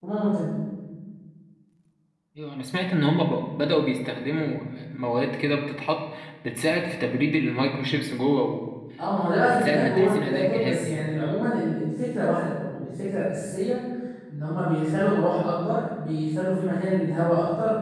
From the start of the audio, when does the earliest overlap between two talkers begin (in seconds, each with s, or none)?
9.4 s